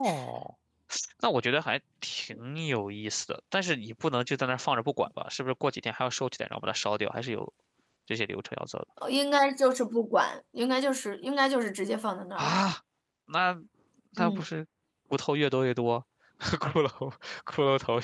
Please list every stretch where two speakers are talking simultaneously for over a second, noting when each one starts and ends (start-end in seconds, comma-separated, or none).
none